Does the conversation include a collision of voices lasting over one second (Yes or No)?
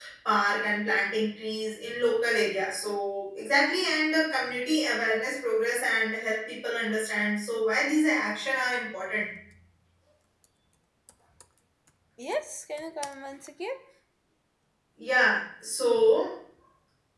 No